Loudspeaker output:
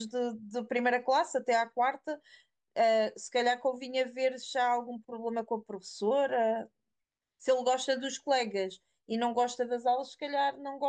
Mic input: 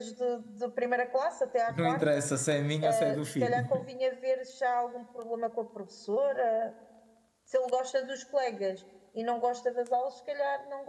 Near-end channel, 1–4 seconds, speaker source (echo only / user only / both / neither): both